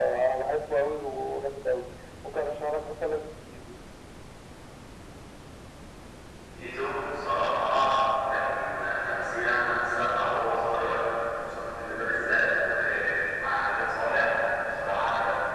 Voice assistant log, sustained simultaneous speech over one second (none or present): none